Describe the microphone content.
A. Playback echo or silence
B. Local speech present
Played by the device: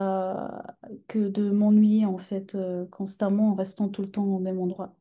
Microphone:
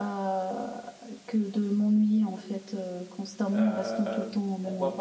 B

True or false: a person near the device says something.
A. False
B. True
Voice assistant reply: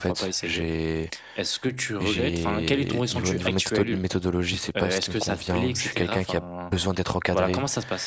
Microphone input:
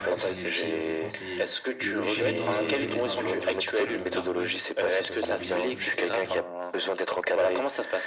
B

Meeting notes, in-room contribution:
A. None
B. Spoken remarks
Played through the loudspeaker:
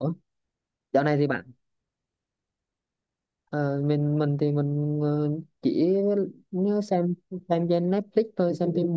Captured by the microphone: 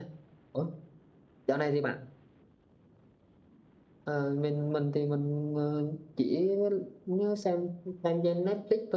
A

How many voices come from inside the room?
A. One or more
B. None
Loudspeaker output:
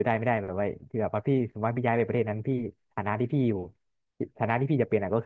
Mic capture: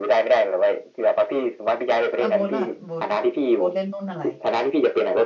A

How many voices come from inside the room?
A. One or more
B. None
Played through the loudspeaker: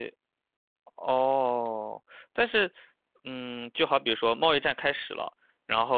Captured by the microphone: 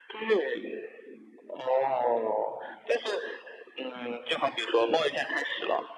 B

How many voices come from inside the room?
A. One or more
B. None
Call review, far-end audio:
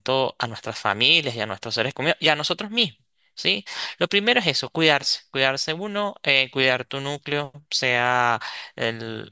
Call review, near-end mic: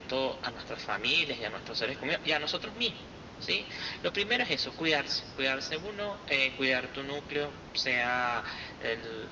B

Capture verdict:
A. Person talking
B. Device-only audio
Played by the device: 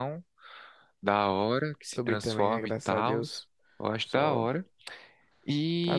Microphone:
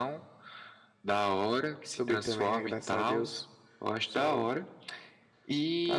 B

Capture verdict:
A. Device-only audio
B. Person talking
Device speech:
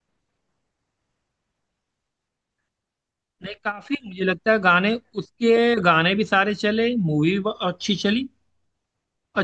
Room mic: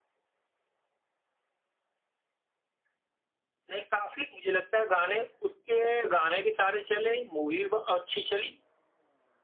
A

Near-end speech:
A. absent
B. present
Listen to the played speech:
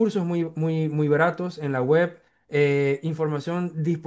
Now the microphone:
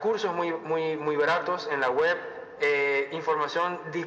A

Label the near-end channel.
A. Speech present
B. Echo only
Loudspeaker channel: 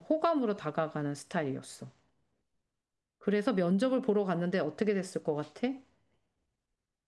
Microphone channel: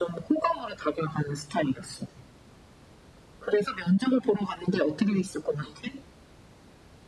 B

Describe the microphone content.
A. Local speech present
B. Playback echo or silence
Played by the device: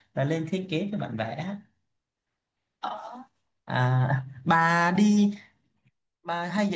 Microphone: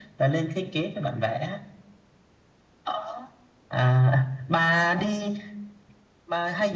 B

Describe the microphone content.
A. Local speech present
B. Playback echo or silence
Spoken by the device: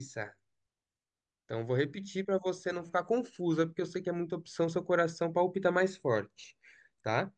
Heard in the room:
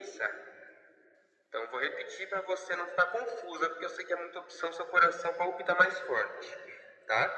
B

